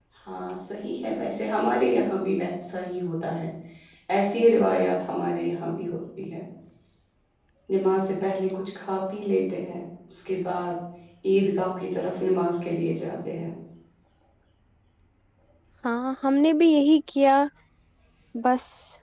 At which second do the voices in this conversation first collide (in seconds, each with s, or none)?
none